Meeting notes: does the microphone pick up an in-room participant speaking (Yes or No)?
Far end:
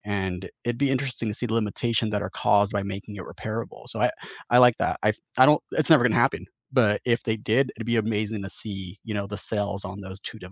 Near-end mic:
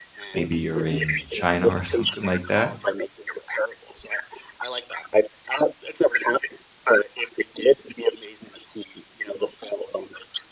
Yes